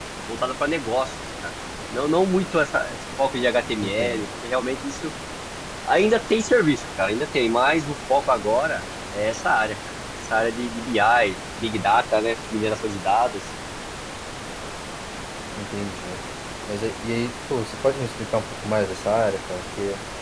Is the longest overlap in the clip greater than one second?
No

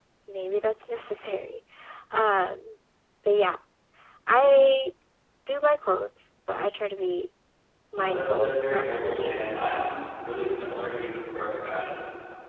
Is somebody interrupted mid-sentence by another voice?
Yes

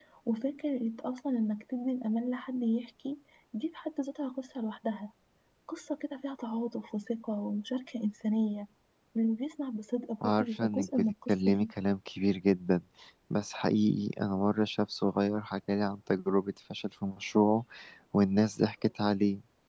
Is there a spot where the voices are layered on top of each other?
Yes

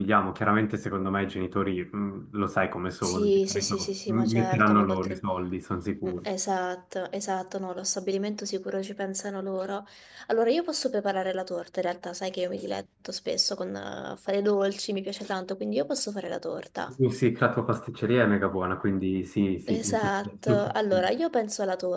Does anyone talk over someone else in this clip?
Yes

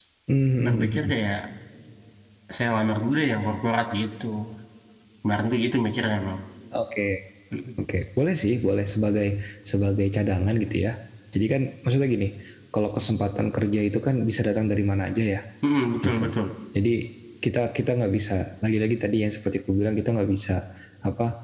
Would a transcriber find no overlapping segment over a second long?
Yes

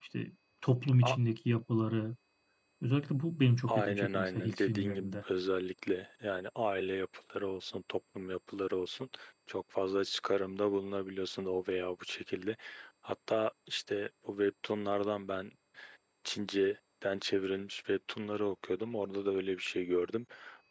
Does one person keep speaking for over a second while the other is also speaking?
Yes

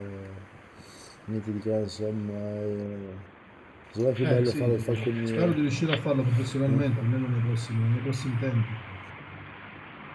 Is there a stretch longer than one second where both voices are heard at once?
Yes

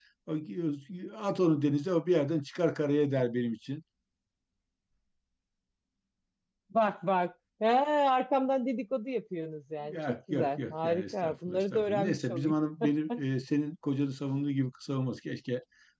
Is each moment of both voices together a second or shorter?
No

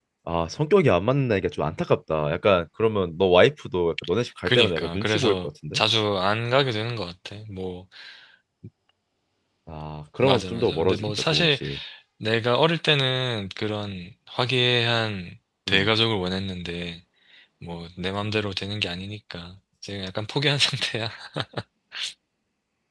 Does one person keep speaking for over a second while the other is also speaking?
Yes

